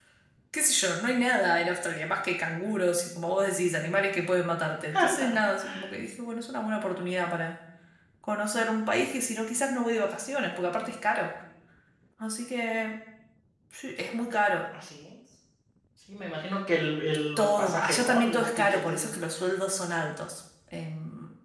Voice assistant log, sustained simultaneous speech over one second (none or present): present